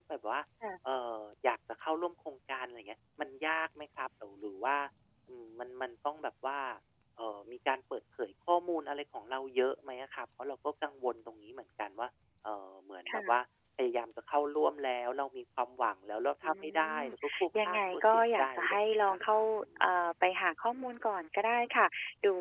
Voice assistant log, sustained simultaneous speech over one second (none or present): present